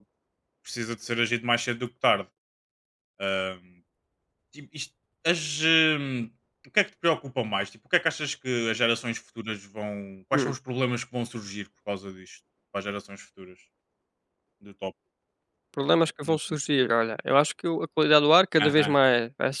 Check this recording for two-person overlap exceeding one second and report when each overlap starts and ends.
none

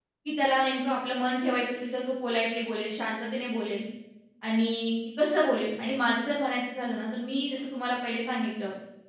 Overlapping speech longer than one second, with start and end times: none

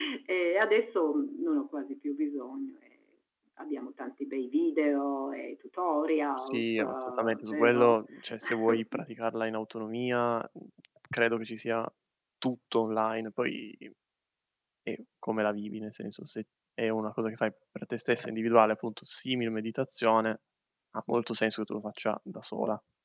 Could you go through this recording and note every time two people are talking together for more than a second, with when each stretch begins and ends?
6.4-8.0

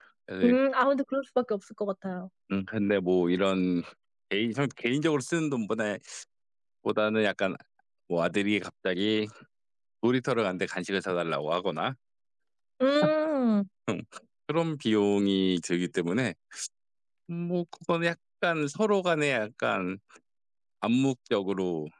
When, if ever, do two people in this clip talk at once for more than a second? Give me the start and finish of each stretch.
none

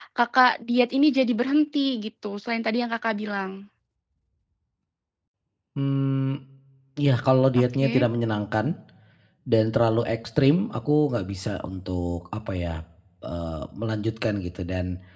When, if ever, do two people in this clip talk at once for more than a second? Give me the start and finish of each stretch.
none

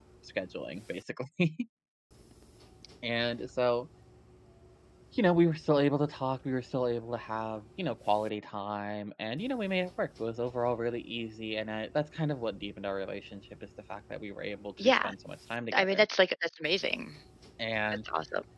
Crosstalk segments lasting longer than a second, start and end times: none

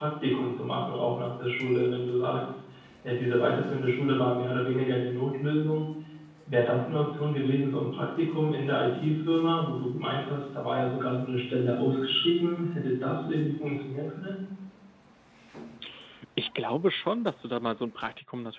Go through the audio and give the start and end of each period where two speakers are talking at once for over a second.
none

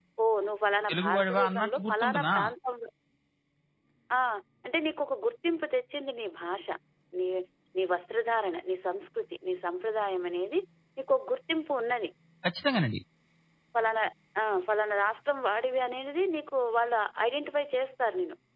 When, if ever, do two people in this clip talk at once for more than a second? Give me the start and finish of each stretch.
0.9-2.4

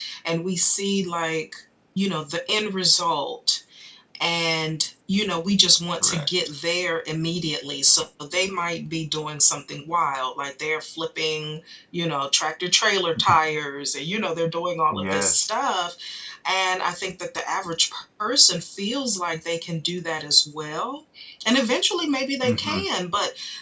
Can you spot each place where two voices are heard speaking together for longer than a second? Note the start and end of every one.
none

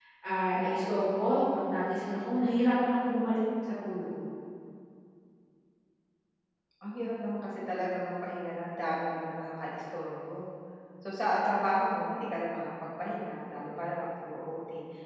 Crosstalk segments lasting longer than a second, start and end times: none

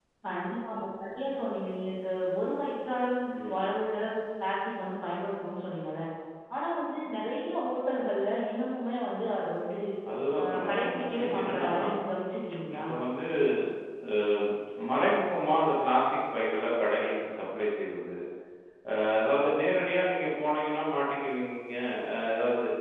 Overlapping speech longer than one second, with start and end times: 10.4-11.7

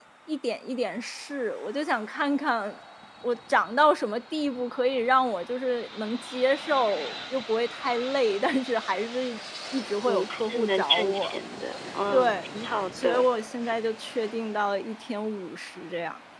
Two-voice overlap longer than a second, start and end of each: 10.1-11.4

